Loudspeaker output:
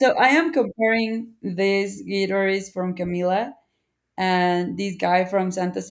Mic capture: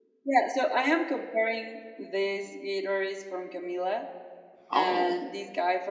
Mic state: both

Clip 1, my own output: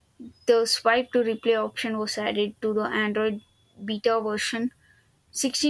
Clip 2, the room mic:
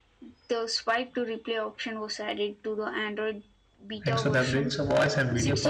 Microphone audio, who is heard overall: both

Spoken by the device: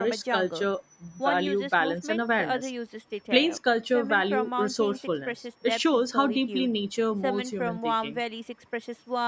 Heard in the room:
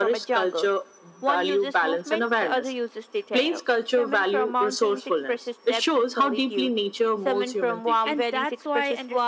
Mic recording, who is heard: both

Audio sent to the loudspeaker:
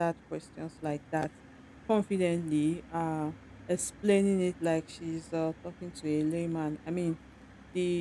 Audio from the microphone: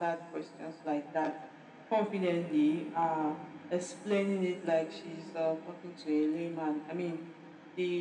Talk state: echo only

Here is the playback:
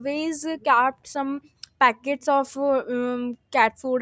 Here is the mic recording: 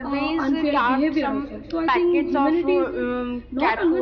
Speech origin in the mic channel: both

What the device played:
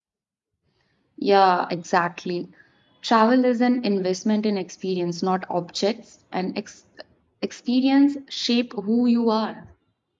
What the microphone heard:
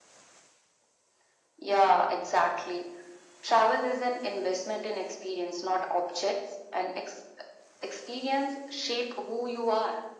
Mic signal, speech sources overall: echo only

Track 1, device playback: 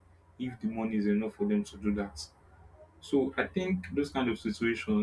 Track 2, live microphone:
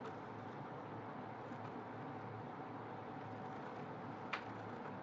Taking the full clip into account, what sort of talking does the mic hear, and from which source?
neither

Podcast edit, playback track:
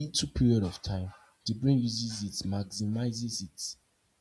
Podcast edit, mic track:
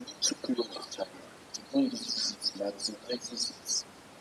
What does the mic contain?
echo only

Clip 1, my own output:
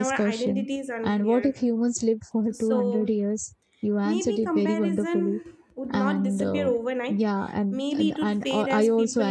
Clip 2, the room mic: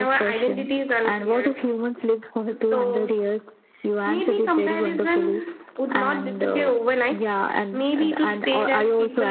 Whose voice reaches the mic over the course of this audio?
echo only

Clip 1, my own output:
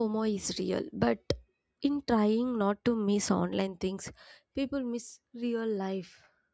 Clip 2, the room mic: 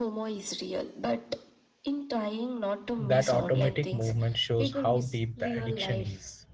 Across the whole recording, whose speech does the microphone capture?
both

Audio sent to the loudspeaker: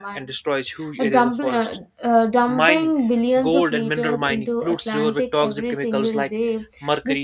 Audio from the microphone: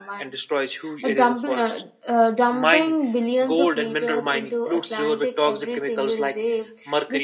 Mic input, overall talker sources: echo only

